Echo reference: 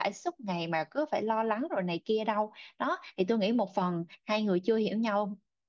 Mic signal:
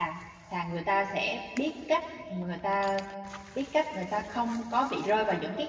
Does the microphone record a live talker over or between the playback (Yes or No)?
Yes